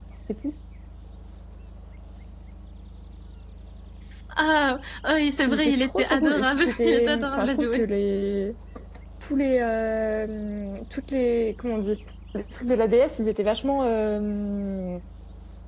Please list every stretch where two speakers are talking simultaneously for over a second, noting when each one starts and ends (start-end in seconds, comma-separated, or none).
5.5-7.8